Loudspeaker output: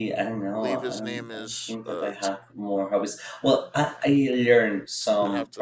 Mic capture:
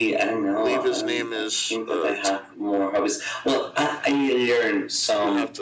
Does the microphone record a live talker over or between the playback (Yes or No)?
No